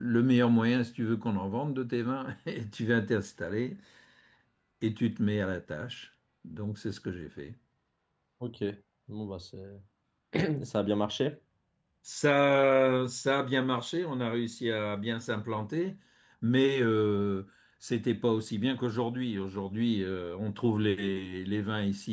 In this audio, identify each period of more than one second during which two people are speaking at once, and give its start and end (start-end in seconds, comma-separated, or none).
none